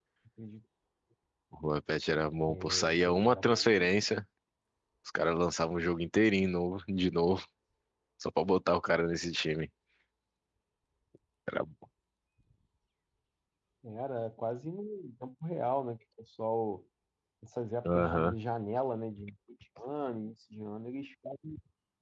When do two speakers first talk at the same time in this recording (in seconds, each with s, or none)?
2.5 s